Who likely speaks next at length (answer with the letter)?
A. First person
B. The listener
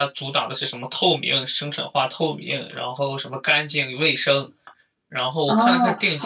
B